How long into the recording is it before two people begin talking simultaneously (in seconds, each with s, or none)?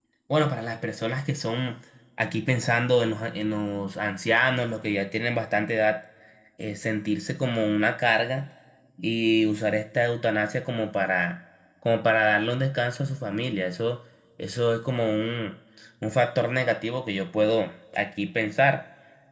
none